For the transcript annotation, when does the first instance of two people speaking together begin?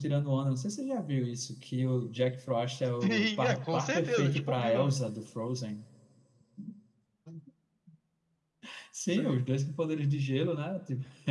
3.0 s

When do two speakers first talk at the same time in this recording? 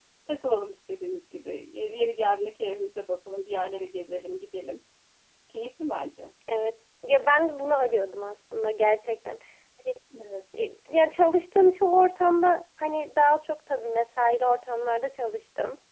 none

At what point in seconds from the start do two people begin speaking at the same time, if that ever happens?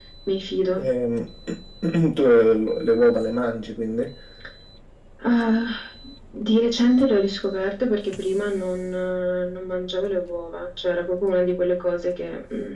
none

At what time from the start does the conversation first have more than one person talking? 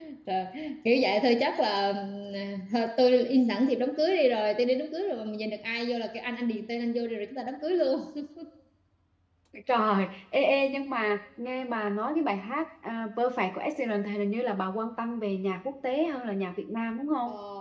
none

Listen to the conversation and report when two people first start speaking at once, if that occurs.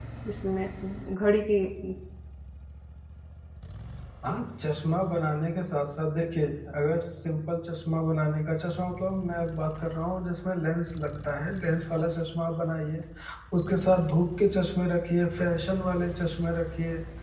none

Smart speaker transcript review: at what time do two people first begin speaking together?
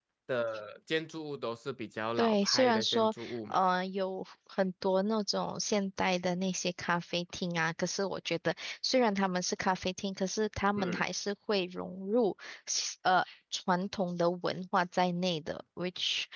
2.2 s

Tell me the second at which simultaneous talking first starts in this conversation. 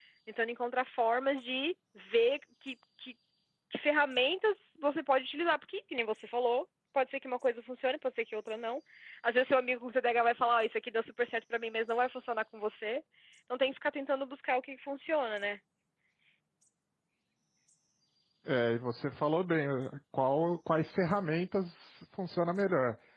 none

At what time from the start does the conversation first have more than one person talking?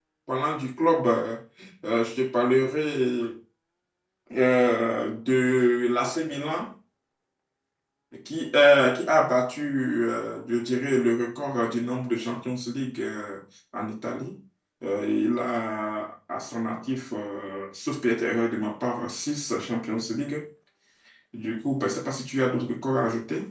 none

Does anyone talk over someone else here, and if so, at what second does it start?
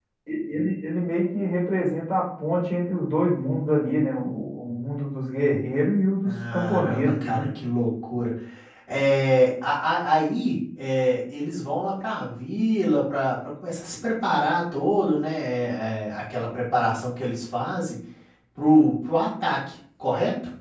6.2 s

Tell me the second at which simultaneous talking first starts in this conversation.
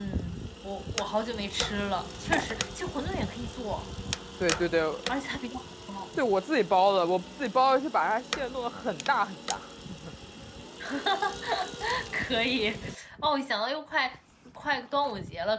none

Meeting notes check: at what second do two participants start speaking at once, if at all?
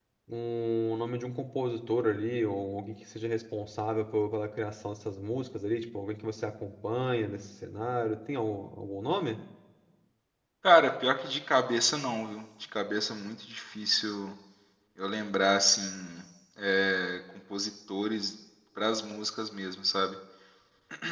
none

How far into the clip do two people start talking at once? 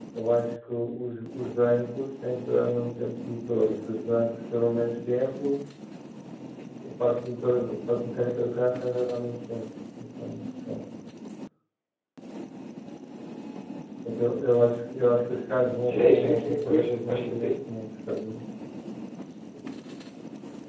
15.9 s

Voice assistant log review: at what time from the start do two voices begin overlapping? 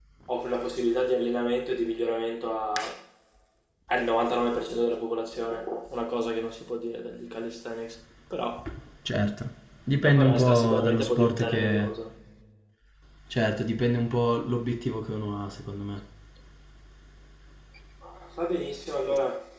10.0 s

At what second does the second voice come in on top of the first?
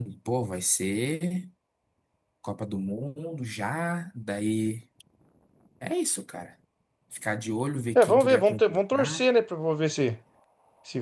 8.0 s

